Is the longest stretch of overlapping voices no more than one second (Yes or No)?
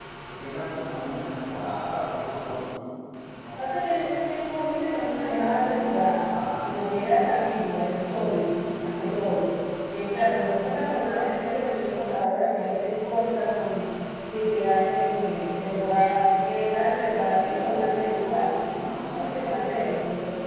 Yes